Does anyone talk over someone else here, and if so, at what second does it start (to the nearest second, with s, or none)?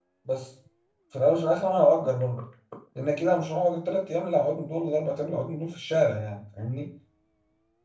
none